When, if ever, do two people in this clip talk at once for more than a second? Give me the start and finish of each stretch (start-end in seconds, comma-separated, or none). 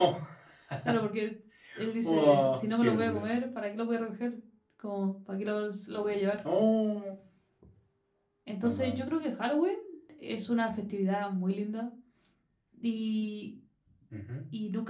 2.0-3.3